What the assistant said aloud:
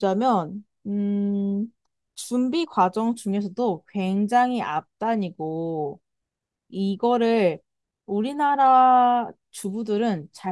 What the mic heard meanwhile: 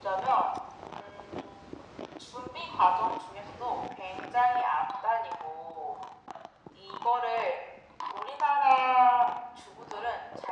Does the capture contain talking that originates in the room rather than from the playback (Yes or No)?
No